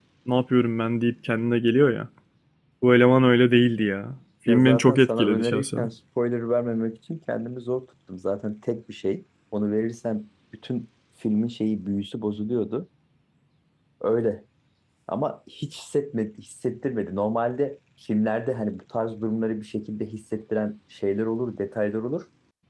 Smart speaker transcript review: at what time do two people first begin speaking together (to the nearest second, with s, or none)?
4 s